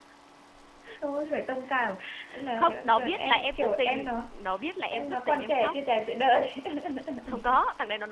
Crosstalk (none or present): present